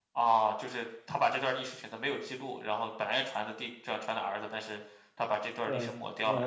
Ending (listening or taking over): taking over